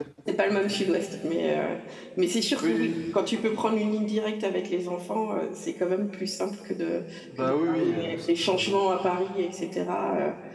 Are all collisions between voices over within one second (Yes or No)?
No